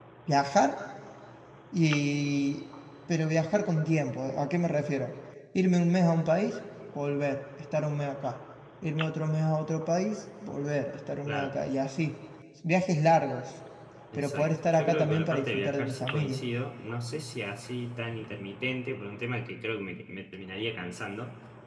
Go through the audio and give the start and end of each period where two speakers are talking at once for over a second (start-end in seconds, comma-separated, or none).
14.2-16.4